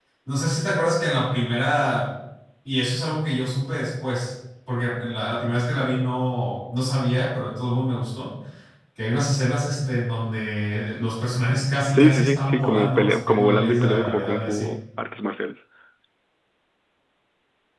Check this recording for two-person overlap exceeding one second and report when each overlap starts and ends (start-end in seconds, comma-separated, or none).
11.9-14.7